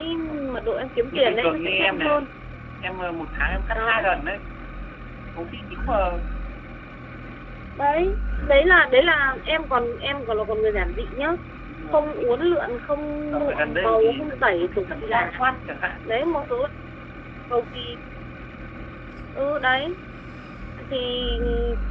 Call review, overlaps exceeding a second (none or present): present